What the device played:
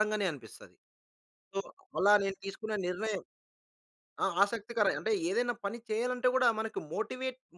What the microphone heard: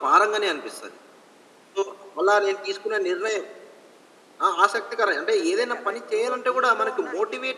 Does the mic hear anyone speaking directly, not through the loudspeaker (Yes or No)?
Yes